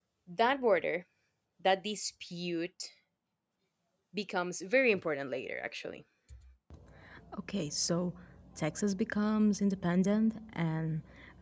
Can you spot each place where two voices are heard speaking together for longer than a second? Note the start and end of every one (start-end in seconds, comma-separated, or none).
none